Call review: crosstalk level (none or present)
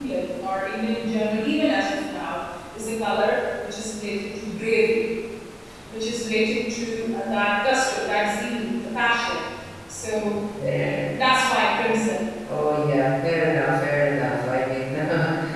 none